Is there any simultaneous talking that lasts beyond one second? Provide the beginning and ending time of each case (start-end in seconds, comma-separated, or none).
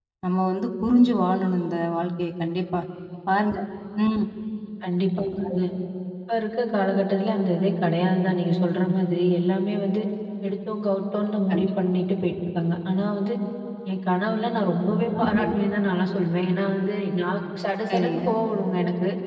none